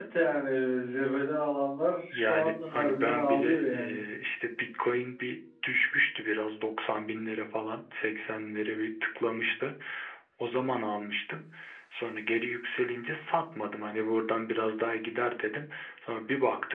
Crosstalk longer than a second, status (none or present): present